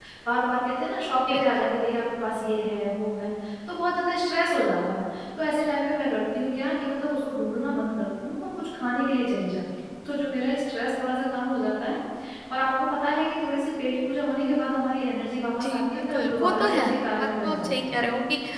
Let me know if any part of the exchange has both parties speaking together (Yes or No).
Yes